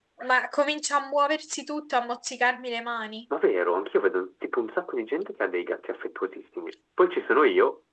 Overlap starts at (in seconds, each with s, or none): none